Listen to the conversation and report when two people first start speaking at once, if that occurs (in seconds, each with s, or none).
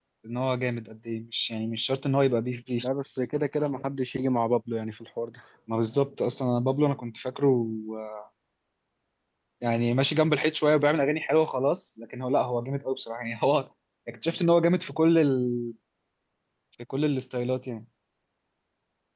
none